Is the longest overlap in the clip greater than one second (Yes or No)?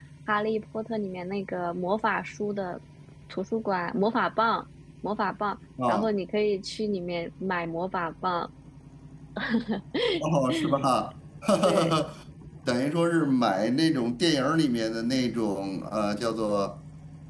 No